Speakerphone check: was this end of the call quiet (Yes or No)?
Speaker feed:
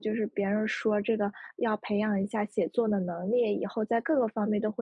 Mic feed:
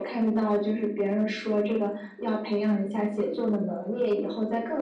Yes